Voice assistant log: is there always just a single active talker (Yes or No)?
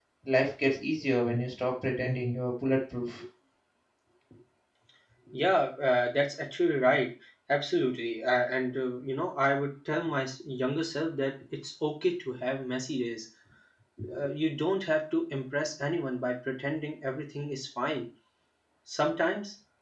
Yes